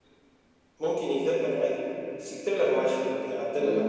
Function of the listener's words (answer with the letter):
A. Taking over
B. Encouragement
A